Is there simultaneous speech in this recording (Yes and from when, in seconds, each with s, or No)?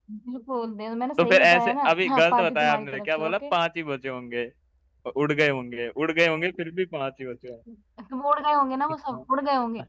Yes, from 1.2 s